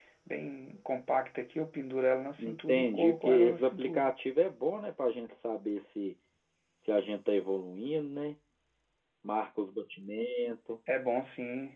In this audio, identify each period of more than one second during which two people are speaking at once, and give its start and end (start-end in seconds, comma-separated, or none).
2.4-4.1